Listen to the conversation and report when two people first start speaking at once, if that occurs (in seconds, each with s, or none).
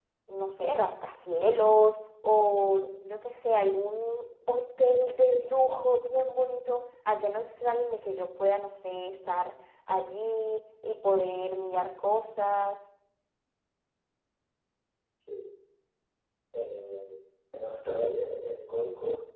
none